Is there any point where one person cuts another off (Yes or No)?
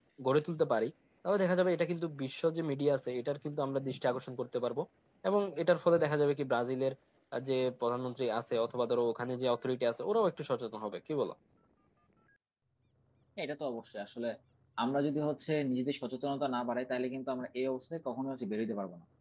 No